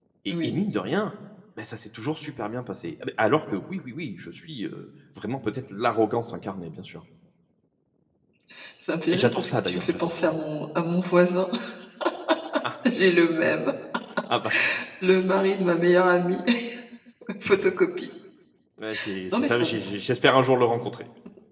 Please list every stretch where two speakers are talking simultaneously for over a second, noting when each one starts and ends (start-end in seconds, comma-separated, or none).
9.1-10.4